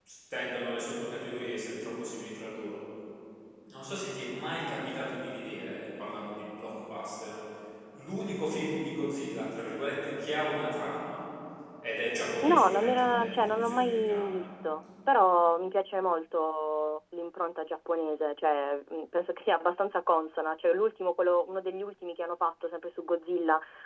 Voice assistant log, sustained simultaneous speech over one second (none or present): present